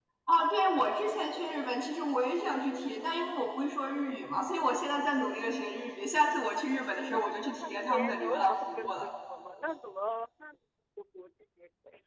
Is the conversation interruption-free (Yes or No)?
No